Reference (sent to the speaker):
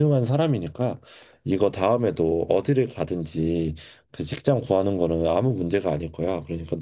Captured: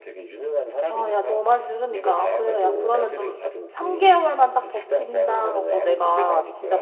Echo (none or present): present